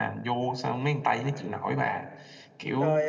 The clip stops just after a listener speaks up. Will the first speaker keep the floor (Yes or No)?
No